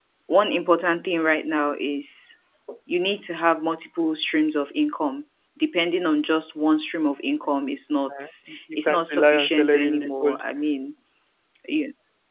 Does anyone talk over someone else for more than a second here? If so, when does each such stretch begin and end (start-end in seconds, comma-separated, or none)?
8.9-10.4